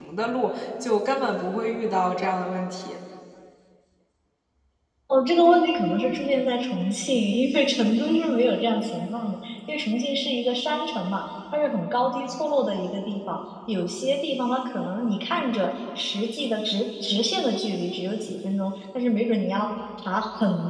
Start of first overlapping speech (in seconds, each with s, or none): none